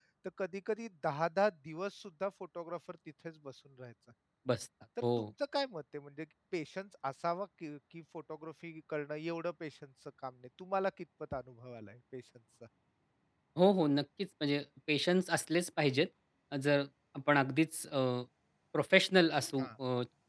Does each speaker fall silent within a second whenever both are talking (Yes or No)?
Yes